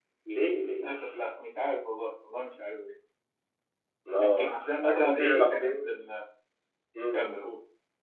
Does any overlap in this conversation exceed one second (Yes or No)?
Yes